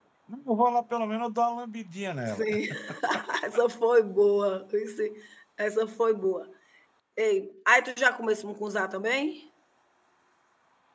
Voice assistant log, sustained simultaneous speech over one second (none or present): none